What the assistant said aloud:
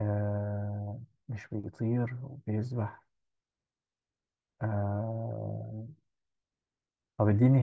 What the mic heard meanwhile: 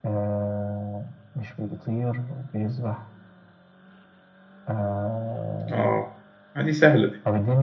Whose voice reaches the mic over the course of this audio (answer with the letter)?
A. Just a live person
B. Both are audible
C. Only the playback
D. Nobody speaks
B